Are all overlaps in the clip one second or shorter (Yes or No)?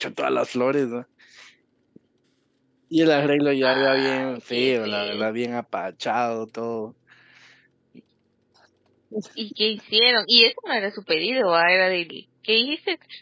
No